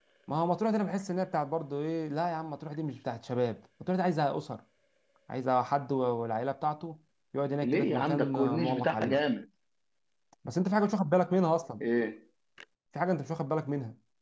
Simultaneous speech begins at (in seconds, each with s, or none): 7.6 s